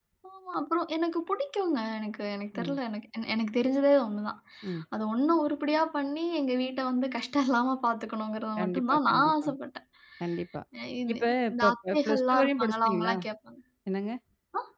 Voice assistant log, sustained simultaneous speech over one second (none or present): present